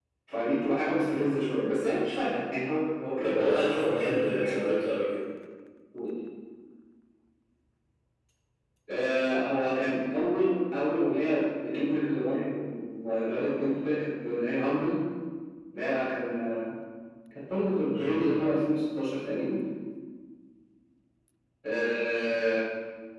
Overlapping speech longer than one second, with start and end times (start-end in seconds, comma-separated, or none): 3.2-4.7